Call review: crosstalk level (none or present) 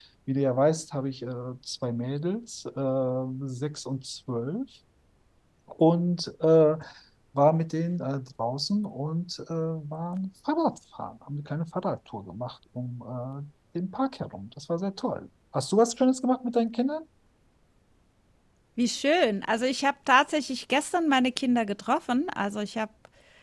none